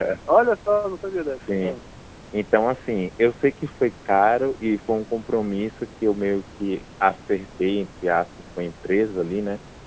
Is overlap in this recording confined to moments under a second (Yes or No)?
Yes